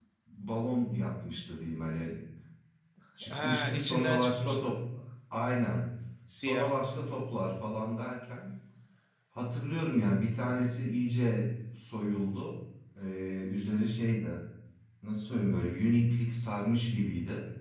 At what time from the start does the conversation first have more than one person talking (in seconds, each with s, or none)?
3.3 s